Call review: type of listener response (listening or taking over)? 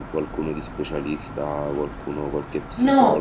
taking over